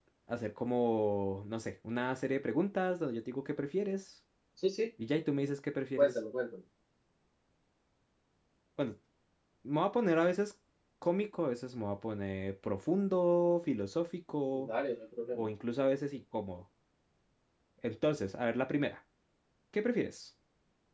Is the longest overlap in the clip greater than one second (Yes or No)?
No